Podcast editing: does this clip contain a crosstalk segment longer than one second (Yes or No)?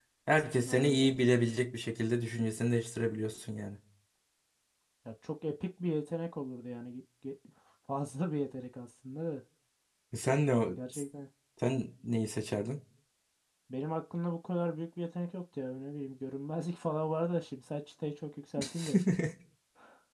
No